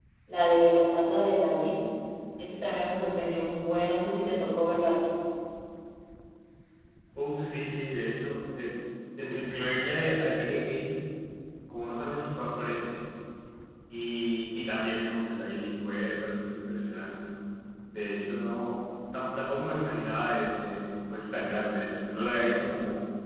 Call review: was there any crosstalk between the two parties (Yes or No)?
No